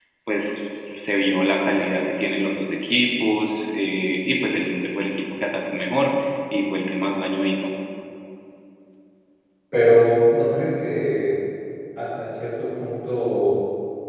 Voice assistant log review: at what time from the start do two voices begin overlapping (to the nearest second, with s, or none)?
none